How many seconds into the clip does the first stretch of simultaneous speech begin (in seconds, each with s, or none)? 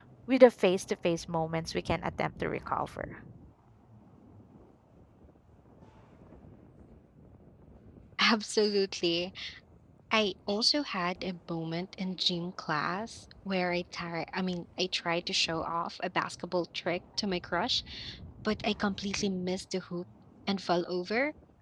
none